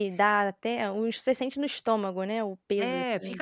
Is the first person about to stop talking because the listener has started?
Yes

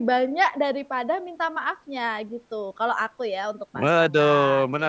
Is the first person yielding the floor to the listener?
Yes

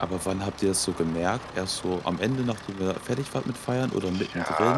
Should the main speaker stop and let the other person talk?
Yes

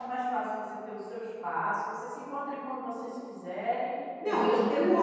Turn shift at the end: Yes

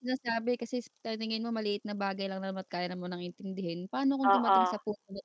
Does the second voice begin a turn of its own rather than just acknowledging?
No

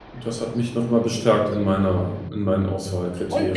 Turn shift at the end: Yes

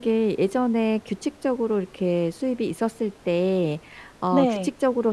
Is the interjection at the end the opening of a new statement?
No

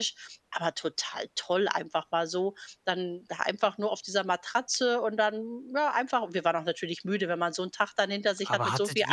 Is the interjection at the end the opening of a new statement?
Yes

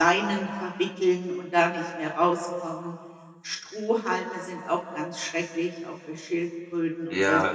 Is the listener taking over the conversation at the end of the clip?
Yes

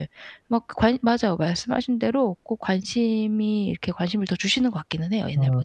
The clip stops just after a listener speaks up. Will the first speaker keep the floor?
No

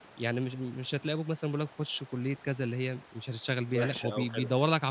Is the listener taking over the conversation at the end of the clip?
Yes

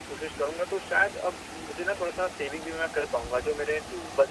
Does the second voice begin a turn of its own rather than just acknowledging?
No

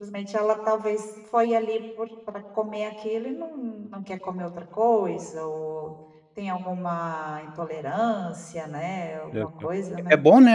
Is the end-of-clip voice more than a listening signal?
Yes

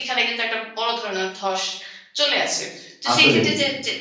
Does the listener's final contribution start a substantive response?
No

